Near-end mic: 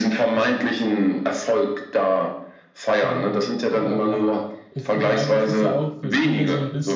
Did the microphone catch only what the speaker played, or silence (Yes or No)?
No